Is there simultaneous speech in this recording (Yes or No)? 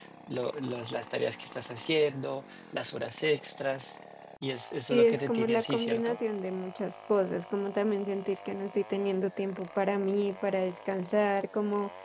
Yes